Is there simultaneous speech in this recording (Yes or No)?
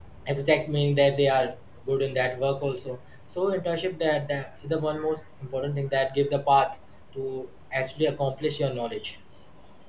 No